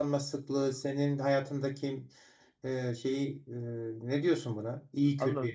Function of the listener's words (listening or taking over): taking over